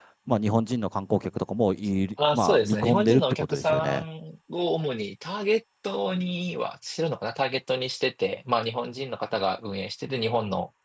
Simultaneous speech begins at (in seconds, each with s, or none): 2.2 s